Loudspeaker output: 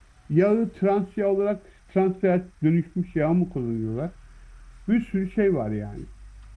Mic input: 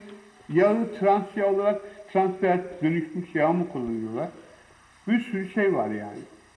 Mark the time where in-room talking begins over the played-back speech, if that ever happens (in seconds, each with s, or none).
none